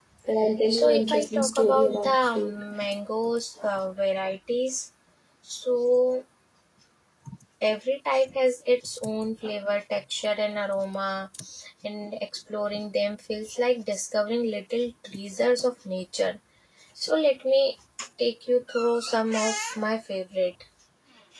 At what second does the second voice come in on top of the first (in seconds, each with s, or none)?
0.7 s